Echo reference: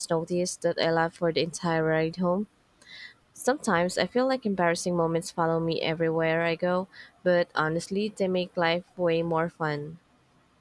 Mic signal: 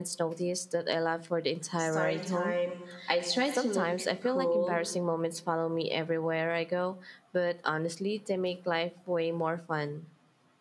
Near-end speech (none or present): present